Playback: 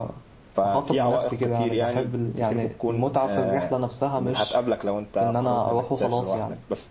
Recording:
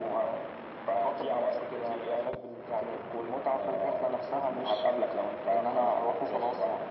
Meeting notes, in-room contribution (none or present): none